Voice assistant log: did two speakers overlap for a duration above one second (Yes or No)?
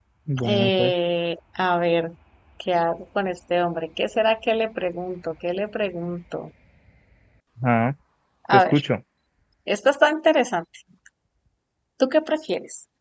No